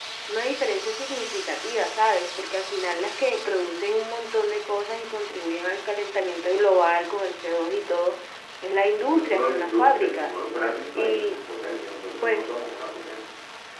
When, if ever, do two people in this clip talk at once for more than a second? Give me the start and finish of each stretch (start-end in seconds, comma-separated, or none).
9.0-10.4